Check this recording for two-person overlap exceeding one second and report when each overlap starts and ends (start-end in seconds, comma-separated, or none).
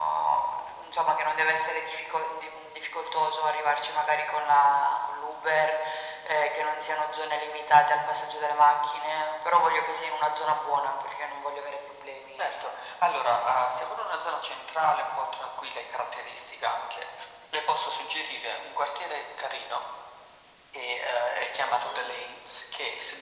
none